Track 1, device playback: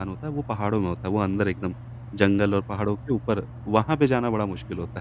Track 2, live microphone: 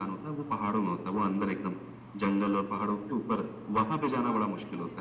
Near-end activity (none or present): present